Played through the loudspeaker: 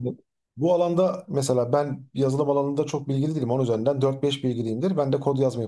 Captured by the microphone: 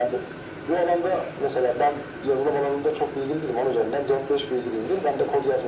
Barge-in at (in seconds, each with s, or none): none